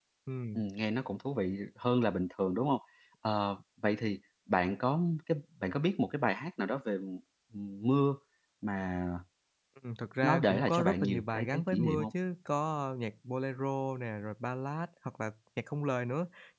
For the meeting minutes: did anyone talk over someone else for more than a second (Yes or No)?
Yes